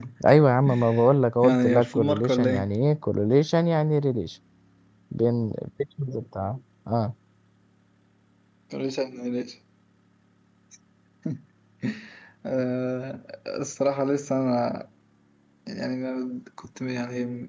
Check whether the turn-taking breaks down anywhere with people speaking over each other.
Yes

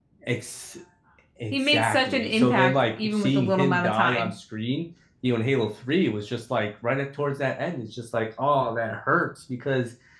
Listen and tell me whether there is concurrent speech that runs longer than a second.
Yes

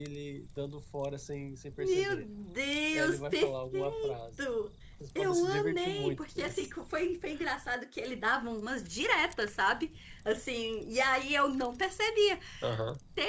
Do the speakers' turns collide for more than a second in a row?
Yes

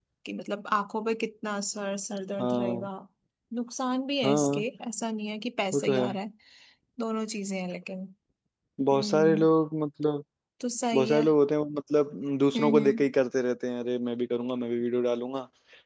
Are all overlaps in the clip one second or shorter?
Yes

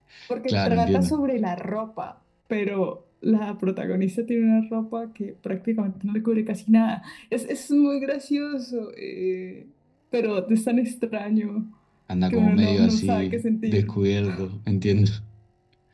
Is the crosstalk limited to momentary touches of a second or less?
No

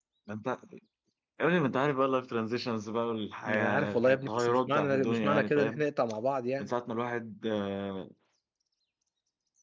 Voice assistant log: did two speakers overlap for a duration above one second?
Yes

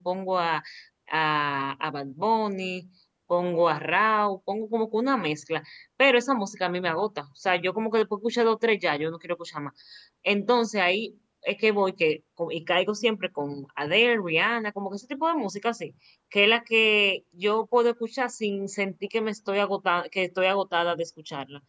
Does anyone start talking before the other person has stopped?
No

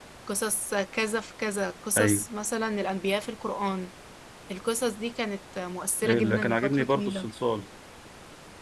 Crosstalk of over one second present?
Yes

